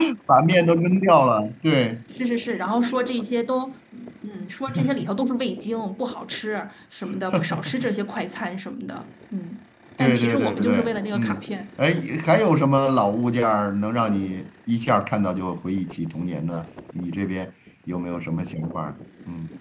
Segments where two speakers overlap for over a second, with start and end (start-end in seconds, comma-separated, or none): 10.0-11.4